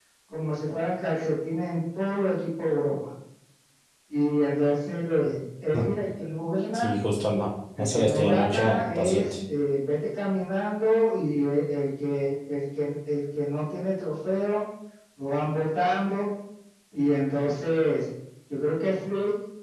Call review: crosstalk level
present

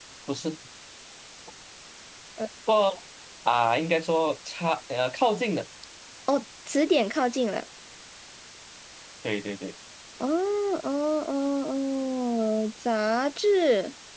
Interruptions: none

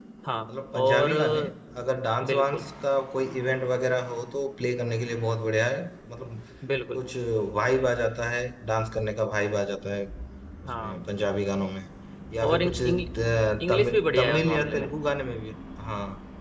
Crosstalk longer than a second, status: present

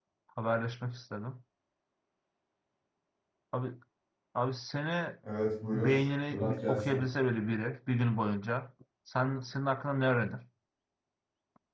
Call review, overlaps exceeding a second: present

